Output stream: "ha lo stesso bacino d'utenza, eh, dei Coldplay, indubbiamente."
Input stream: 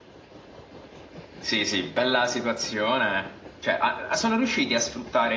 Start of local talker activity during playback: 1.4 s

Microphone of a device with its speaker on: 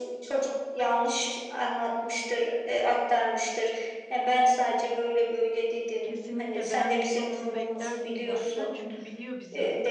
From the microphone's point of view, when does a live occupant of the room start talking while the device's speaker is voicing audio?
6.0 s

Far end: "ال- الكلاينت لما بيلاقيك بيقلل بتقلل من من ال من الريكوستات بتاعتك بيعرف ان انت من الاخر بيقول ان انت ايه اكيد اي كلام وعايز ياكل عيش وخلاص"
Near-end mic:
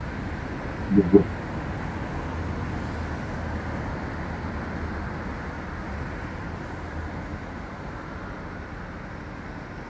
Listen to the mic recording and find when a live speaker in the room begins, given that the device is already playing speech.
0.9 s

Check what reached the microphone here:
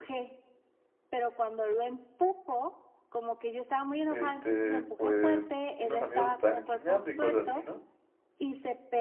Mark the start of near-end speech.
4.1 s

